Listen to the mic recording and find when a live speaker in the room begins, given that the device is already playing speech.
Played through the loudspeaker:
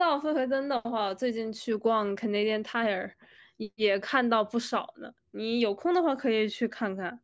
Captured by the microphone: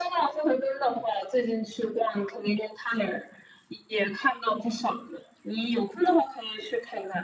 none

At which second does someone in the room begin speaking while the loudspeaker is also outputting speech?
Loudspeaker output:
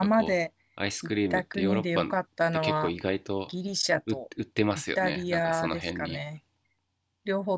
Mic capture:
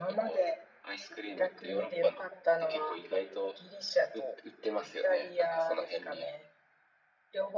none

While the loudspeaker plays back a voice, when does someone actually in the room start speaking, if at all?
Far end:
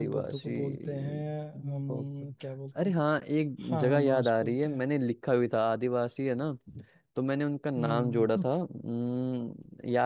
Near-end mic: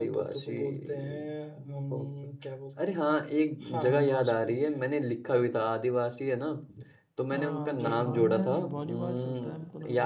7.3 s

